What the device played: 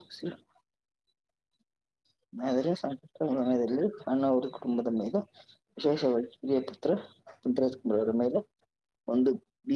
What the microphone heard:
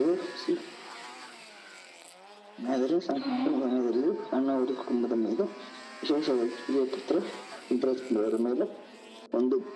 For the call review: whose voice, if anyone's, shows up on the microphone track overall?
both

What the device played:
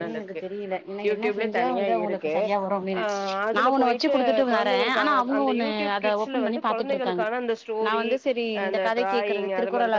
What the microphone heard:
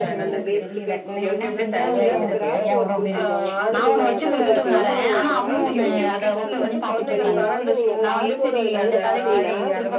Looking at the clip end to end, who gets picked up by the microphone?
both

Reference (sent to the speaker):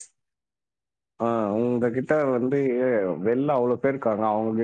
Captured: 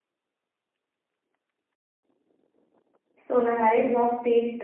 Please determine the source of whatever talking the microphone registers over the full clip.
user only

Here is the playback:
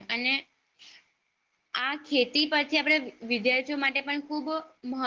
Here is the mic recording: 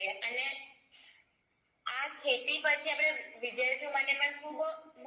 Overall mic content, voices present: echo only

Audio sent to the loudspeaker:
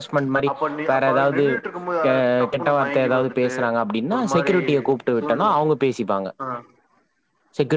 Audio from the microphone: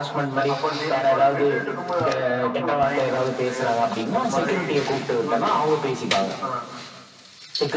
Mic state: echo only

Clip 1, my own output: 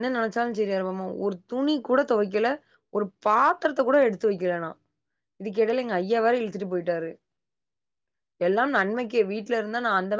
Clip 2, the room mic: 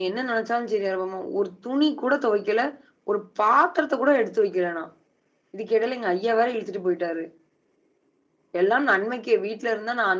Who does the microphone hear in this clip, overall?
echo only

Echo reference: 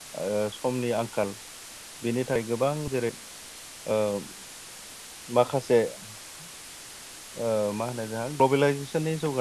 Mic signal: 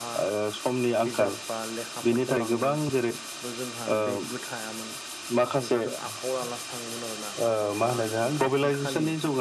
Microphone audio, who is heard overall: both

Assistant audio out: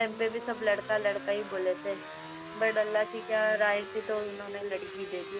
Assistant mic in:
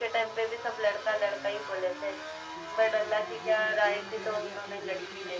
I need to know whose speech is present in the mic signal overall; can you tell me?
both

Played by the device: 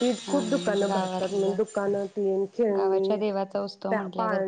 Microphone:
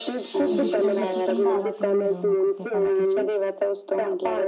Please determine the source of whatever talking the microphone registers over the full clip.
both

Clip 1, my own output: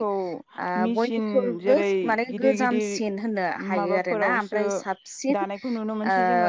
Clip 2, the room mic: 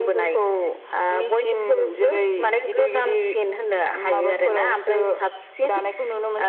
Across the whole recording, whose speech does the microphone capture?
both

